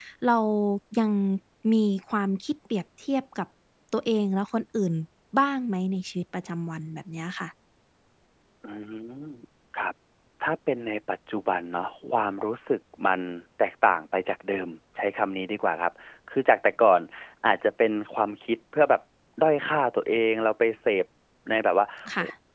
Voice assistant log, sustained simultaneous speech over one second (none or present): none